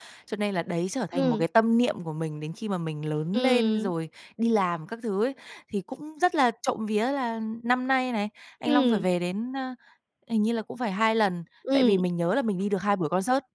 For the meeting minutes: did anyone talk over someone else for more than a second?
No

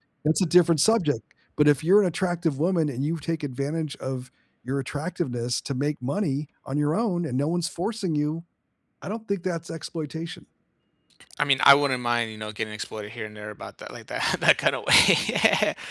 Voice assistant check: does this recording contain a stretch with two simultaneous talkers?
No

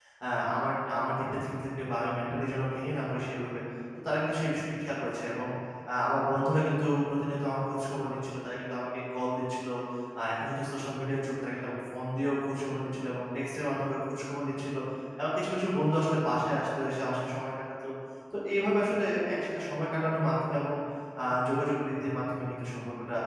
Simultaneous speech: No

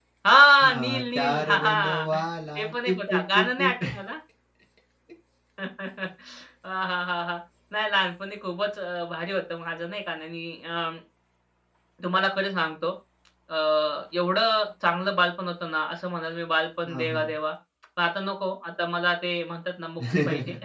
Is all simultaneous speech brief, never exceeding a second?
No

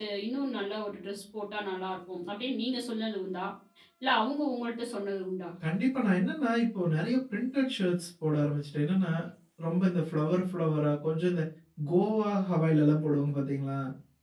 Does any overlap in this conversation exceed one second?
No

